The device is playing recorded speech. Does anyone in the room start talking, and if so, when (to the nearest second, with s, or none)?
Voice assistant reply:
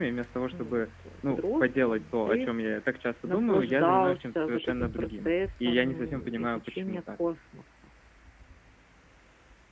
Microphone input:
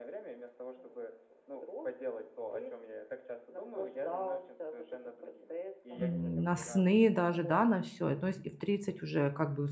6 s